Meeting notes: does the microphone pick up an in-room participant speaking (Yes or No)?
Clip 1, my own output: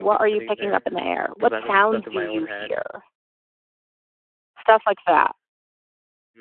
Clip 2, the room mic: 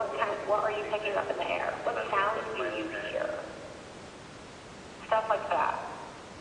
No